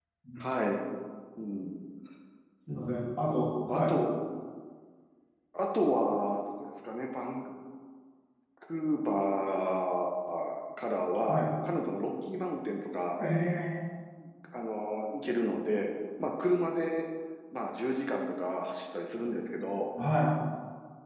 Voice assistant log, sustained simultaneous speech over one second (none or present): none